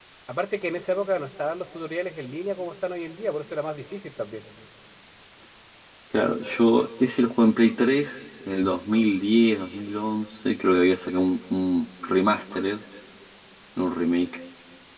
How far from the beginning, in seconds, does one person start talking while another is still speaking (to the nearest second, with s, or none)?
none